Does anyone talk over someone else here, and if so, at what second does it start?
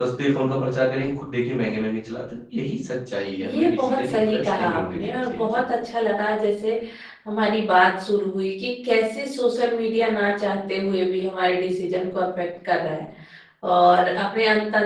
3.4 s

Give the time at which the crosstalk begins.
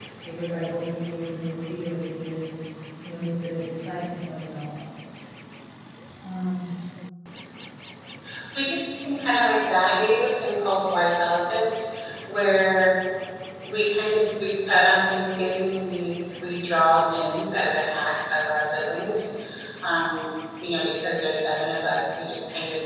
none

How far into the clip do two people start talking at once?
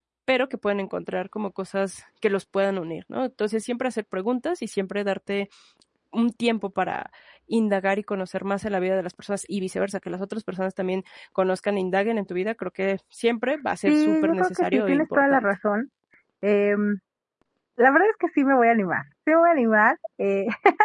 13.9 s

